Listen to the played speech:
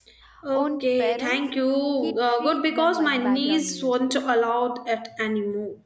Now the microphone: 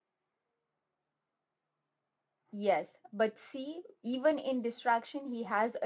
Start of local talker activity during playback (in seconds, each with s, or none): 2.5 s